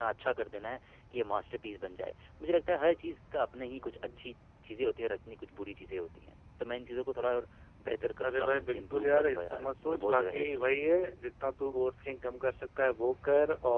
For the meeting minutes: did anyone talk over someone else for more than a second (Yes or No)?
Yes